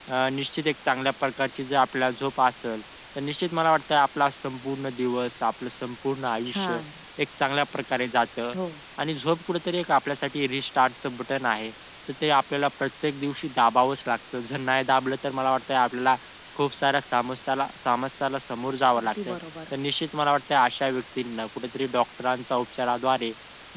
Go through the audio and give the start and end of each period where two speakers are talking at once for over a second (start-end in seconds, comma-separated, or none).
none